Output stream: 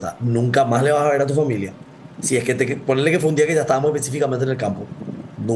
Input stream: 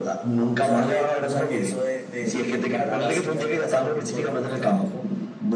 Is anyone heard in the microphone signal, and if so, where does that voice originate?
both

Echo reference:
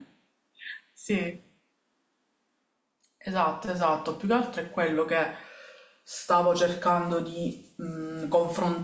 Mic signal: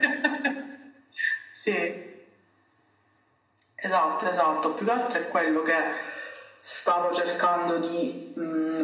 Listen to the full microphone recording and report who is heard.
echo only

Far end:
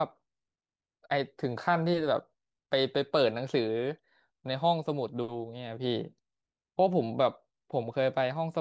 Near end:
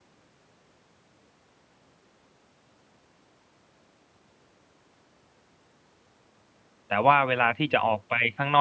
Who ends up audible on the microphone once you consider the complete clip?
user only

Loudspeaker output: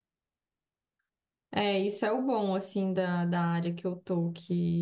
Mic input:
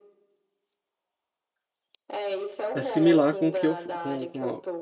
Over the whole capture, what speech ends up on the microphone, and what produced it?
both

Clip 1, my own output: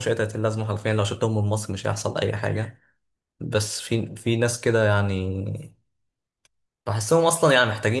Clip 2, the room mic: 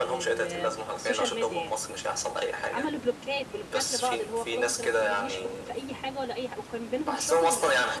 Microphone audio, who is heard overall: both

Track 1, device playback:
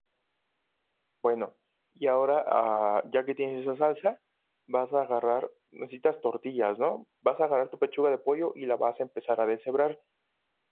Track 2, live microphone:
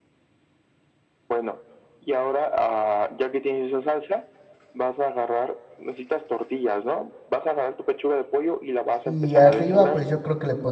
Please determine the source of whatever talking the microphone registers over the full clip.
both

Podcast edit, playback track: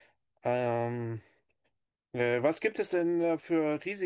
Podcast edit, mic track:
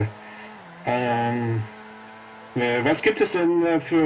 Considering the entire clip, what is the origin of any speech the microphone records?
echo only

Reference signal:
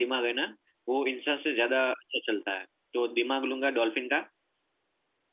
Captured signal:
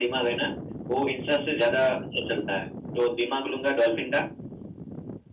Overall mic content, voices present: echo only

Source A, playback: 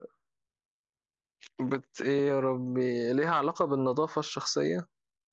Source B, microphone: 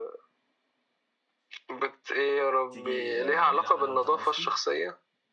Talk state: both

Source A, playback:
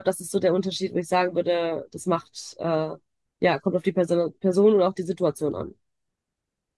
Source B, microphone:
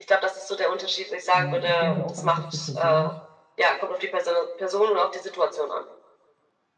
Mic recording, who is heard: both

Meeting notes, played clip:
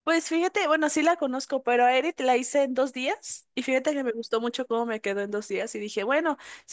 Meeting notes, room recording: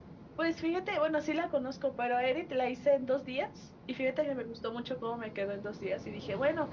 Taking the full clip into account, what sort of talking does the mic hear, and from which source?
echo only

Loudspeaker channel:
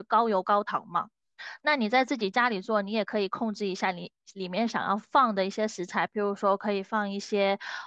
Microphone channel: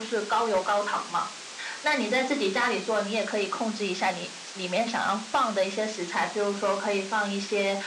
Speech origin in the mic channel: echo only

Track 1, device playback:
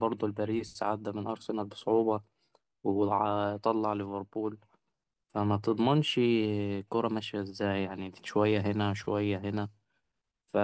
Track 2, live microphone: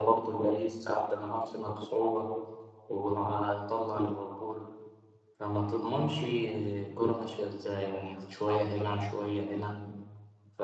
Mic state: echo only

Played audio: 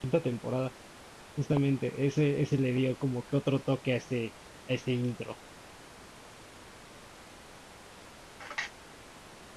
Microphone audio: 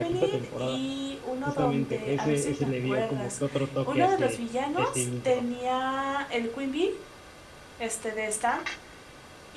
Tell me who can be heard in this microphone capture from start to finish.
both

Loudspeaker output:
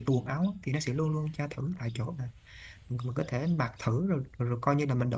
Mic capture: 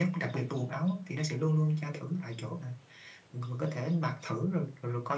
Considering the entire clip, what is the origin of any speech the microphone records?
echo only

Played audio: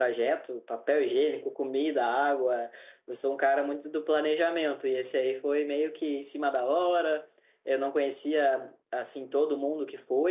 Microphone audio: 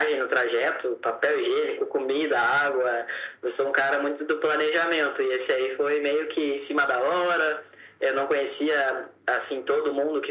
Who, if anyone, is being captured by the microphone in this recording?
echo only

